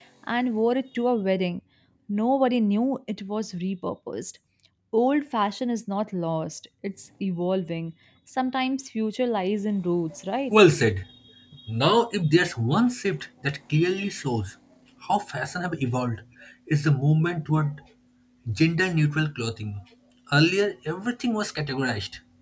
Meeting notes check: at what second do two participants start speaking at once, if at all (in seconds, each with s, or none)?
none